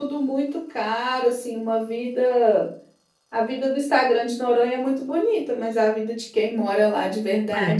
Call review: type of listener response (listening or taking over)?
taking over